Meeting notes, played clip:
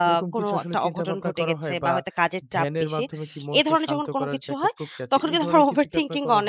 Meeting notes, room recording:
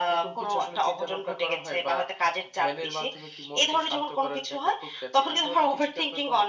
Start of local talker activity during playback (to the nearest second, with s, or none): none